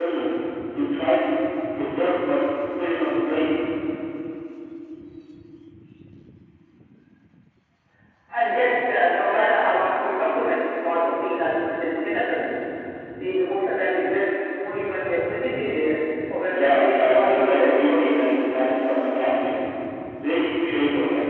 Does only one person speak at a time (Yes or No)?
No